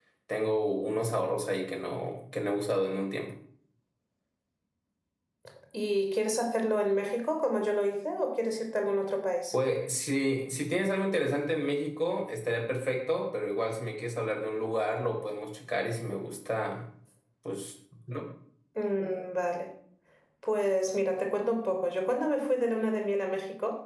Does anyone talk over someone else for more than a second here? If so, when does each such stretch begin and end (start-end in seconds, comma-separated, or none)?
none